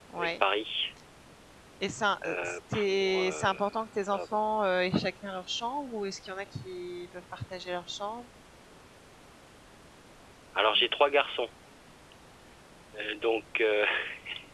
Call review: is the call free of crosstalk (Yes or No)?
No